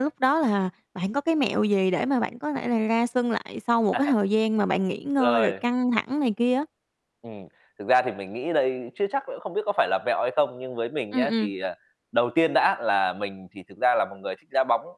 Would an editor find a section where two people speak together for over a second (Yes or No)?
No